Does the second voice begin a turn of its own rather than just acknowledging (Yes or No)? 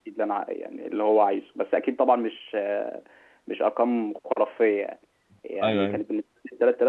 No